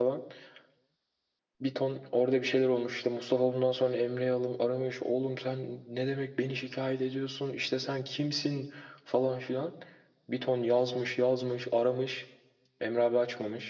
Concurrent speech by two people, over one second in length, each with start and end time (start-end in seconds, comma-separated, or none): none